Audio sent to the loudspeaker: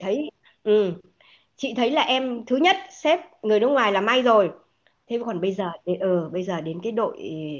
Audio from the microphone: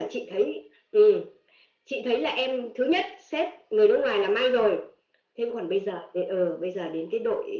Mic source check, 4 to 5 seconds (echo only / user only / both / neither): echo only